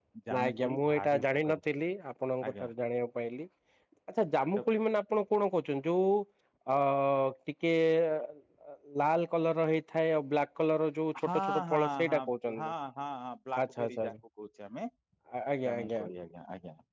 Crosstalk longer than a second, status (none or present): present